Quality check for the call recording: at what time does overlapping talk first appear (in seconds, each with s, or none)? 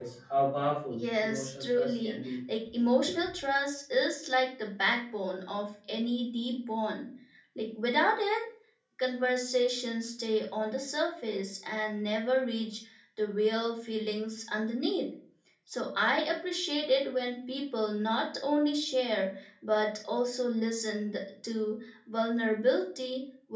0.9 s